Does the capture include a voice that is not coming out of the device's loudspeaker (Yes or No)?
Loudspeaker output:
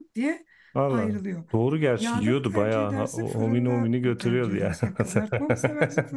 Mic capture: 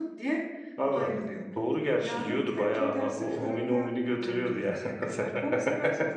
No